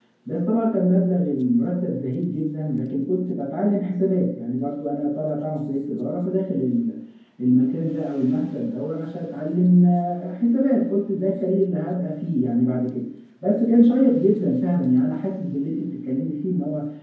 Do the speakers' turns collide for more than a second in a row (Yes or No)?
No